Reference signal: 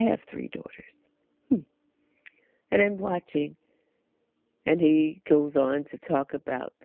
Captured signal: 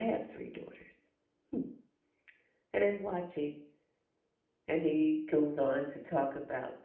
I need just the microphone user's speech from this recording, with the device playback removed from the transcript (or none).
none